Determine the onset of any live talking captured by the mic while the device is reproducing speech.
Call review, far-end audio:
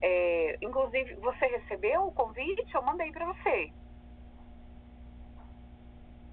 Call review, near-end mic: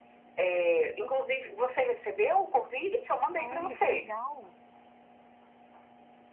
3.4 s

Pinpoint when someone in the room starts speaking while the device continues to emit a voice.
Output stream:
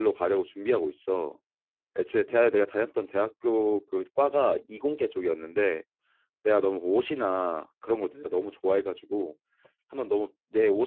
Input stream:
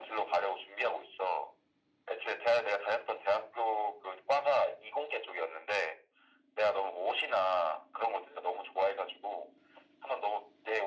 none

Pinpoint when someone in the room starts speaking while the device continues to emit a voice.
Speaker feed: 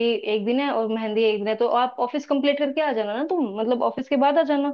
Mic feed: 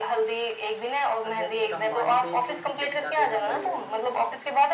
1.2 s

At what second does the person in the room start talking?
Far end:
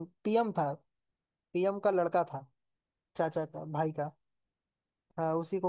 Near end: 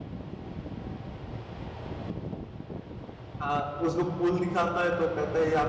3.4 s

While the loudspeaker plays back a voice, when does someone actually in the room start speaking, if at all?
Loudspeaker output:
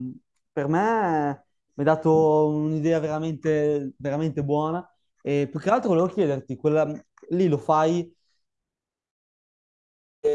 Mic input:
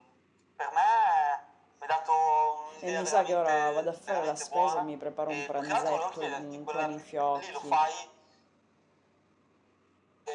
2.8 s

